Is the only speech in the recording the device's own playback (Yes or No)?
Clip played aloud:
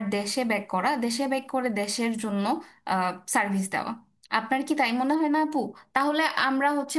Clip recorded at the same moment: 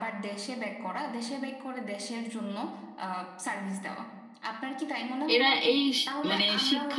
No